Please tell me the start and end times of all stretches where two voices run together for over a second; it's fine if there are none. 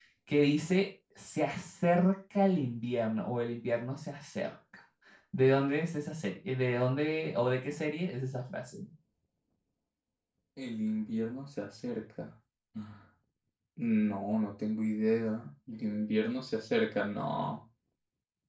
none

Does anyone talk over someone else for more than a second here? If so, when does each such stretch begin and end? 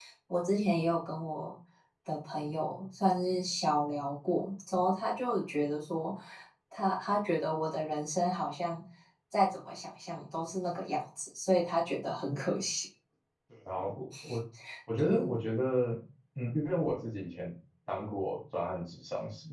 none

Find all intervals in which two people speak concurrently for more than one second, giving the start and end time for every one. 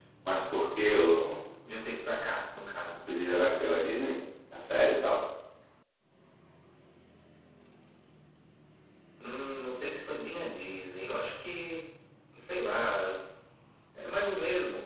none

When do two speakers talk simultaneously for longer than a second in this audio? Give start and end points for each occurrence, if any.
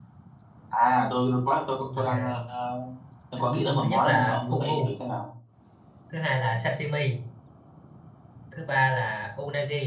3.6-4.9

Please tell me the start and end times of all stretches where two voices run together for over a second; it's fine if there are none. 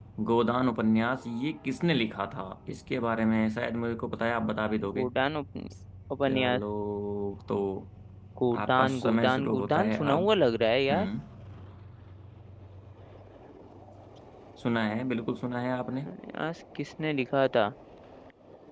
8.6-10.3

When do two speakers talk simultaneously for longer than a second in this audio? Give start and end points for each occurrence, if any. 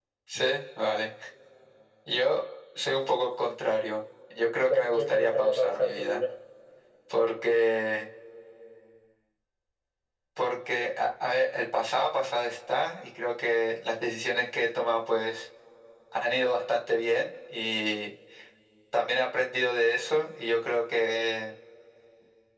4.7-6.2

